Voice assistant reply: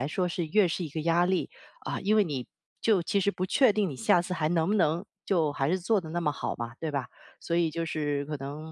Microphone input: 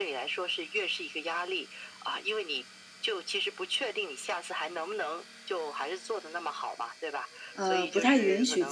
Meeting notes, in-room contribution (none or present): present